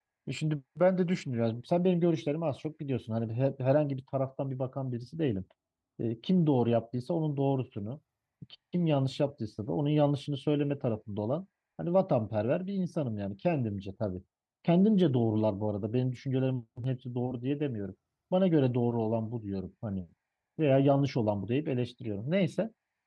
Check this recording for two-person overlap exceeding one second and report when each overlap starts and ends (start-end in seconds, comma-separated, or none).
none